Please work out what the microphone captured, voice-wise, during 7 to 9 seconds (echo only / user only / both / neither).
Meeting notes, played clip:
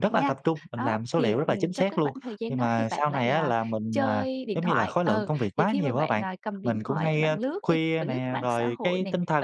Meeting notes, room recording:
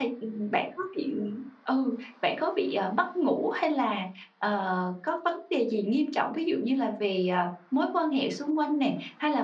user only